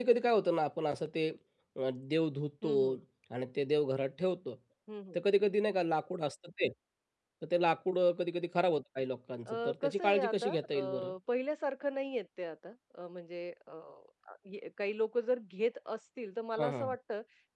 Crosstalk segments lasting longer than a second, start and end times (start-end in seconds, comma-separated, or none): 9.4-11.1